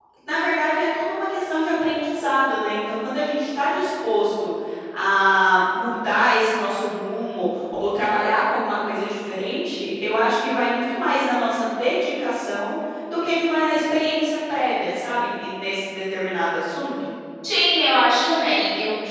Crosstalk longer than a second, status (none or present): none